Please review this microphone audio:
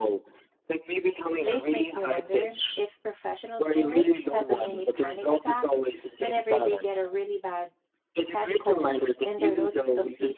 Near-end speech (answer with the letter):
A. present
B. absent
A